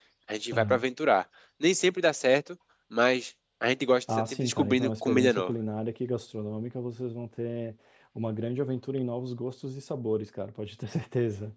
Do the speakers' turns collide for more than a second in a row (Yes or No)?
Yes